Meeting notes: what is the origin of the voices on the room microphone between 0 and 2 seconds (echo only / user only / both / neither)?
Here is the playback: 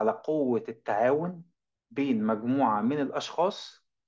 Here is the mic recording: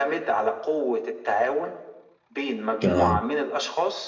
echo only